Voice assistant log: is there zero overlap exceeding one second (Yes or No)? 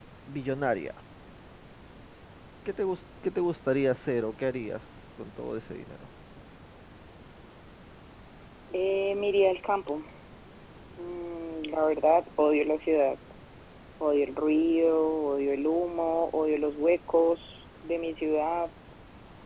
Yes